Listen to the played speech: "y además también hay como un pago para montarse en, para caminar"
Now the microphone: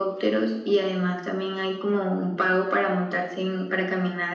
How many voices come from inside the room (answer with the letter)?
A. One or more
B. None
B